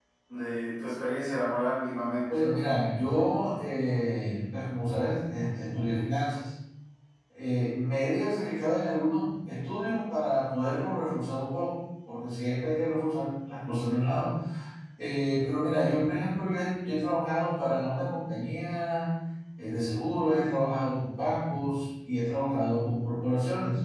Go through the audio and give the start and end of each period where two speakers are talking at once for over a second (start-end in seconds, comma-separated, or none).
none